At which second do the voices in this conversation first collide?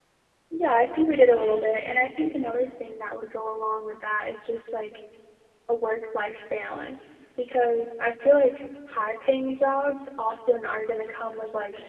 1.1 s

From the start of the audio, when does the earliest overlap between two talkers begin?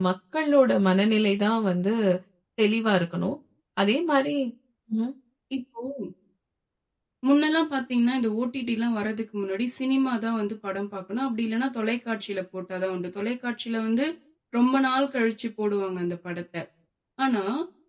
none

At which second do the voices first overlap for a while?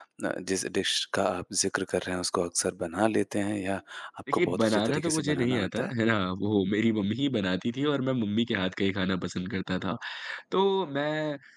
4.3 s

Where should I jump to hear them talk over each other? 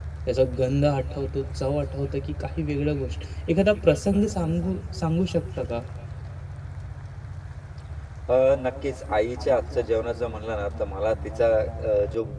none

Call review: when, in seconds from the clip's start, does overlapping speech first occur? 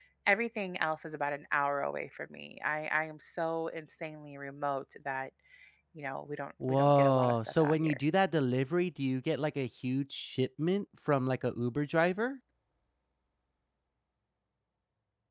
6.7 s

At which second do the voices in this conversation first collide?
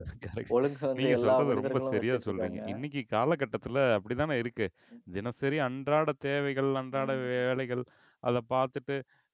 1.0 s

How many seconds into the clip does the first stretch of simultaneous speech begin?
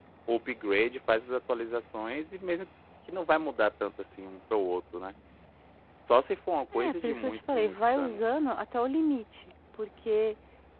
6.7 s

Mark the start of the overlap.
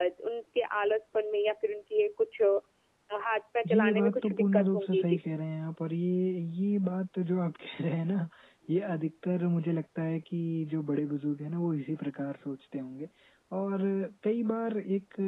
3.7 s

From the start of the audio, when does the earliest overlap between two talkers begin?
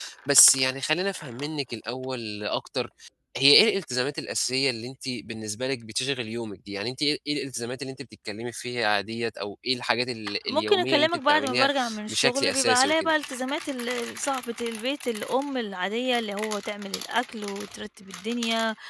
10.5 s

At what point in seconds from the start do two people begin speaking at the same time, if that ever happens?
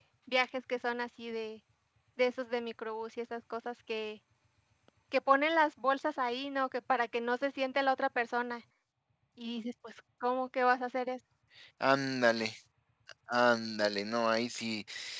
none

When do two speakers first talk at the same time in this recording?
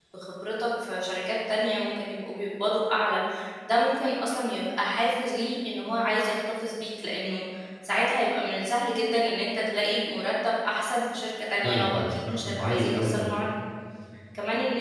11.6 s

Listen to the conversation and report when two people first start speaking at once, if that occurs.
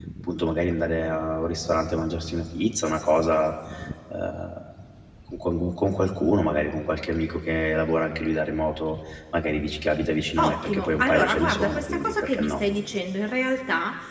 10.4 s

